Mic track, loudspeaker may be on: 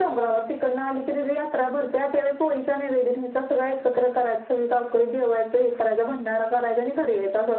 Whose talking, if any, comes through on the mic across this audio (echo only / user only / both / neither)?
echo only